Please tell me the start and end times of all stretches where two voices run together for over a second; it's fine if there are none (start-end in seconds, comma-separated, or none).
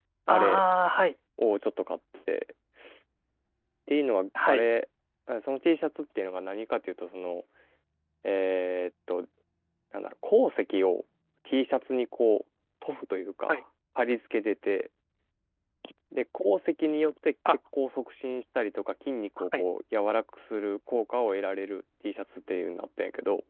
none